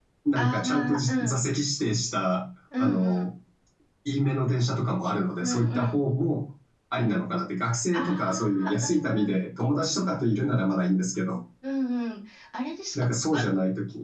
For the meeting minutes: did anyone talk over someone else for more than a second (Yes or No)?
Yes